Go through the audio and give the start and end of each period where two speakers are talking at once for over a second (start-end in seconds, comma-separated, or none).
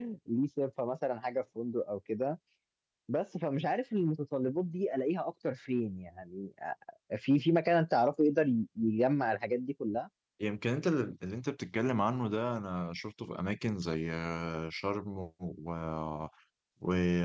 none